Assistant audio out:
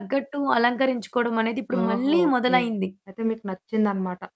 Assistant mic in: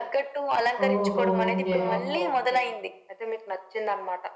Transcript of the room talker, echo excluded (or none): ఓహో! ఓకే.